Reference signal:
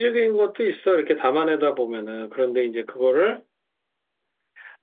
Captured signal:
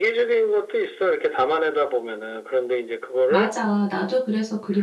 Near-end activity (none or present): present